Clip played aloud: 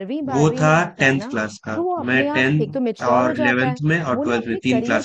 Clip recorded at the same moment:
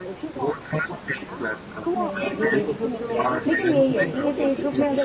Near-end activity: present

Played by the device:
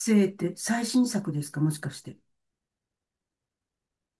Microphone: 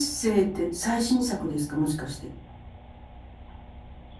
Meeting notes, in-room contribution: none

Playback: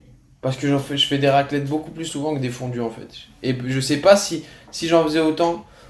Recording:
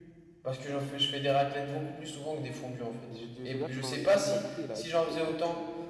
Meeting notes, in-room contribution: present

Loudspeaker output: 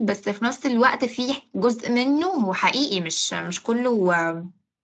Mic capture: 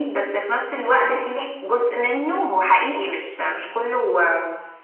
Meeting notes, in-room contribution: none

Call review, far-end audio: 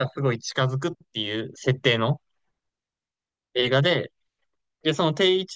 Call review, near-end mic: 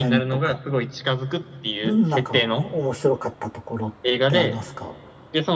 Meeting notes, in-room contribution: present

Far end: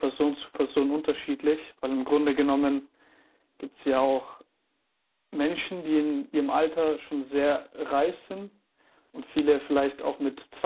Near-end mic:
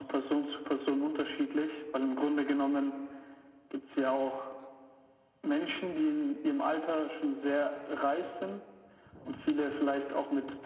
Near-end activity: none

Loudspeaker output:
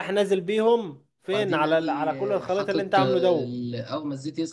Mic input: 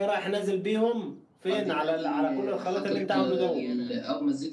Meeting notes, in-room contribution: present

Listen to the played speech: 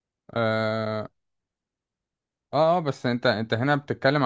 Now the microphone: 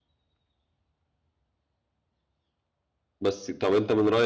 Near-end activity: present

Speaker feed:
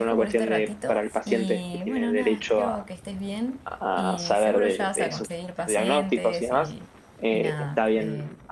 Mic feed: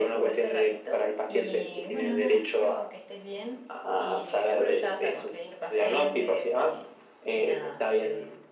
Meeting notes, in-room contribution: none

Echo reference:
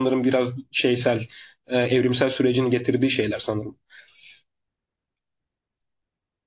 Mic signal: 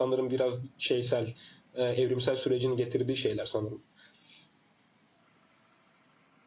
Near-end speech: none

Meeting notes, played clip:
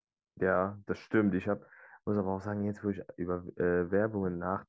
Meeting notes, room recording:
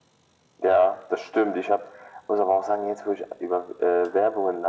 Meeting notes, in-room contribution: none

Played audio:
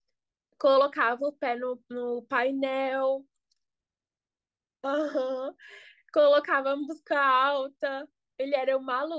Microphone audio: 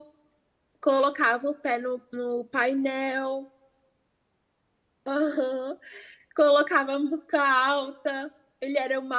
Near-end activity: none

